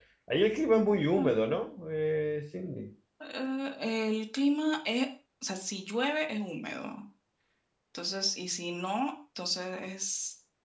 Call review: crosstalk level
none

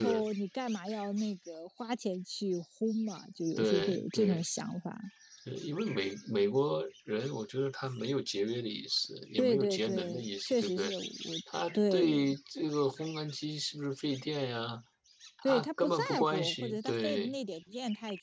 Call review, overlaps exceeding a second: present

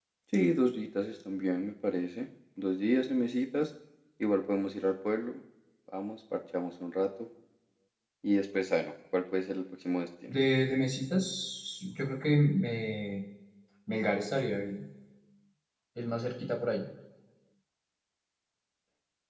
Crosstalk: none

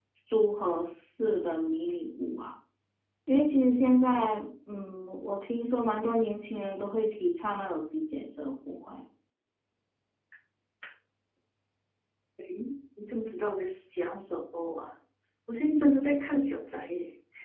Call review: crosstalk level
none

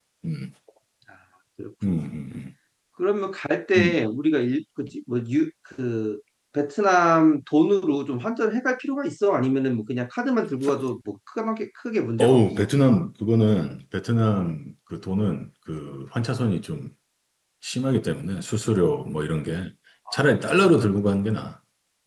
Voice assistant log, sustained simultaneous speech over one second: none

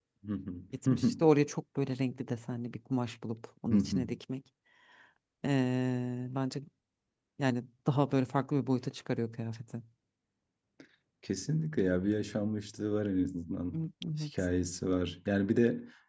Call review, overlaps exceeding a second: none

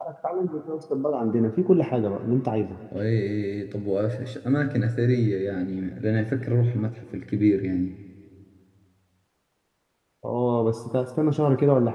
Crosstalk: none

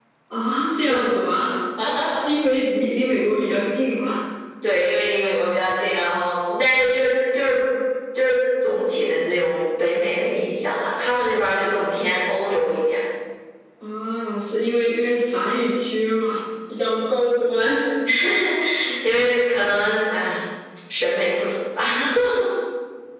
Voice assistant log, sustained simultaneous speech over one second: none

